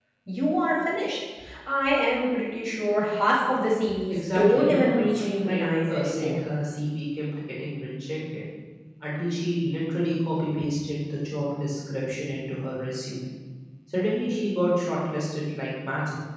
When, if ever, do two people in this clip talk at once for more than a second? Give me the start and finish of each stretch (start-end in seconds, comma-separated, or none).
4.1-6.4